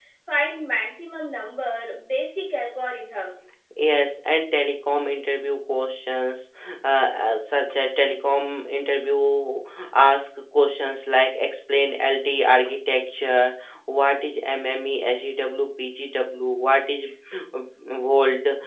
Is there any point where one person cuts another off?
No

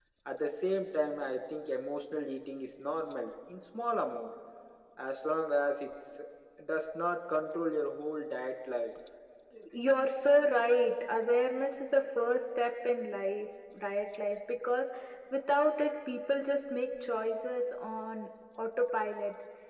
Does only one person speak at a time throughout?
Yes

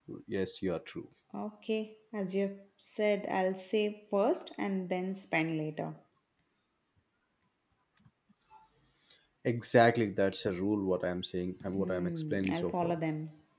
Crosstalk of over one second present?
Yes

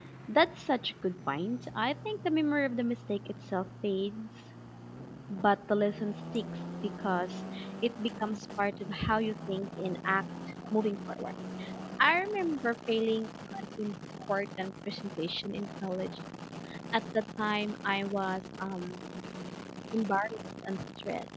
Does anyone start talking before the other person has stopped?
No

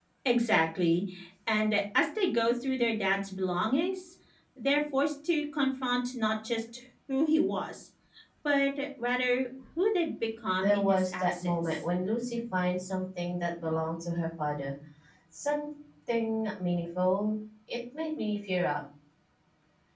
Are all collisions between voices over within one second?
No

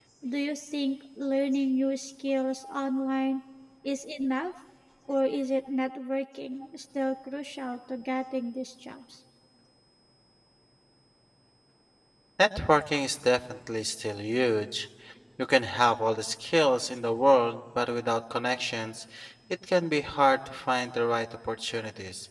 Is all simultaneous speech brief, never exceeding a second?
Yes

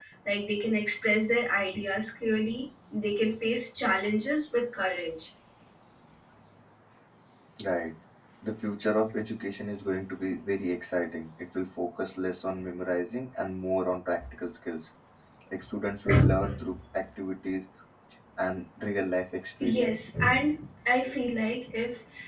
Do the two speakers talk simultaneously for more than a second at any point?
No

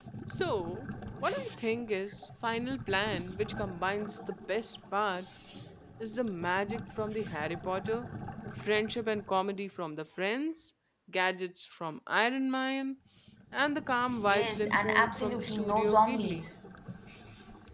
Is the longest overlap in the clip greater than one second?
Yes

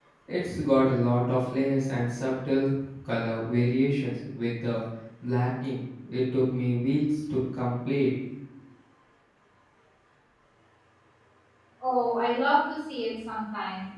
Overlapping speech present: No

